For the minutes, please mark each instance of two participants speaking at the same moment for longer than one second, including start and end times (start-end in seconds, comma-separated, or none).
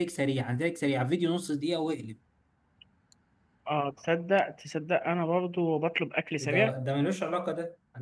none